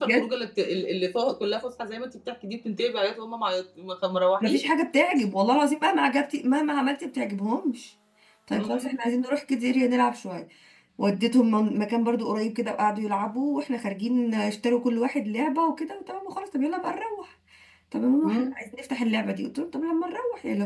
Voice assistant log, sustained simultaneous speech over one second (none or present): none